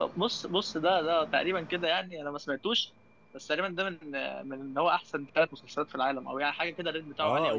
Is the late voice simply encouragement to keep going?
No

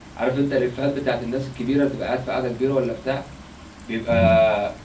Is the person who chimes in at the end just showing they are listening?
Yes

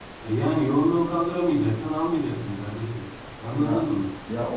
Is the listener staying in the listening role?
No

